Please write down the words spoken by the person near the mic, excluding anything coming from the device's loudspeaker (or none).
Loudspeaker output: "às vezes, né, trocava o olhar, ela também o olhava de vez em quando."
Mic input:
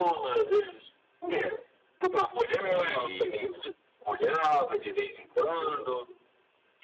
e muitos